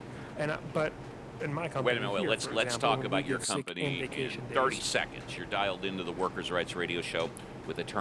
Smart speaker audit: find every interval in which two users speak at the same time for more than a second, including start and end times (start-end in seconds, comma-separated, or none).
1.8-4.8